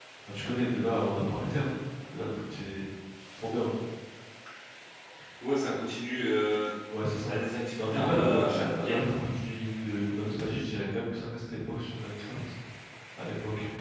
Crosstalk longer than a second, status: present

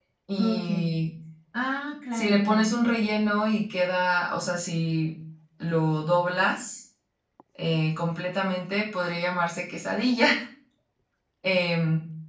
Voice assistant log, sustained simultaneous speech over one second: none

